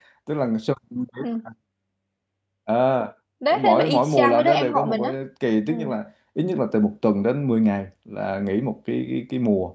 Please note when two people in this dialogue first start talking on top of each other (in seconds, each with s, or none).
3.5 s